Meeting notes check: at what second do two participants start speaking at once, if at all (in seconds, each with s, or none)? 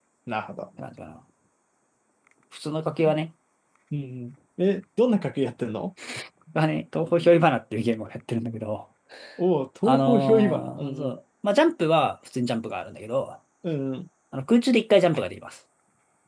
9.8 s